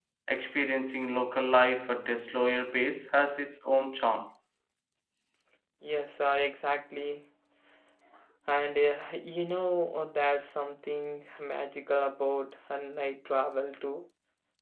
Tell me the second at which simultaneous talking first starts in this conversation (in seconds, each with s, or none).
none